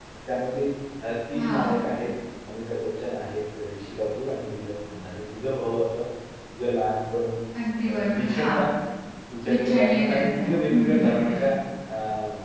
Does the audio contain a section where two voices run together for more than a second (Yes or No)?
Yes